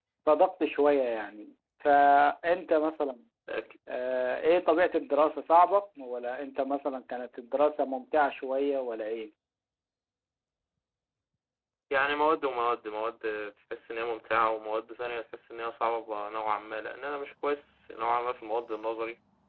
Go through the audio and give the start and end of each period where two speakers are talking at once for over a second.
none

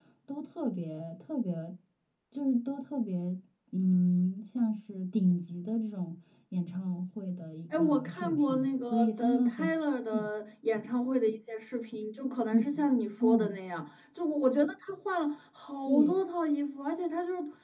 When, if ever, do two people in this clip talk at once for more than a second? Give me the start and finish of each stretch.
7.7-9.7

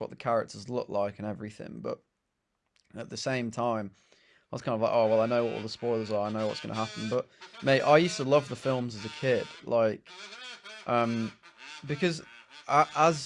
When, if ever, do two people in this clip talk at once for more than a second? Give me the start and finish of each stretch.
none

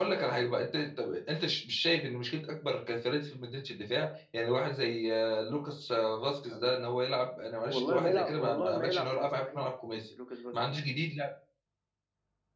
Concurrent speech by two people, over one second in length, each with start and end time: 7.7-9.7

